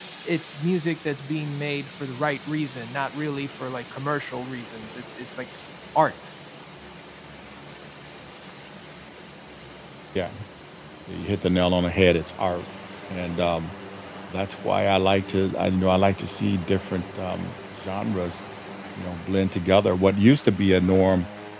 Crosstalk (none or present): none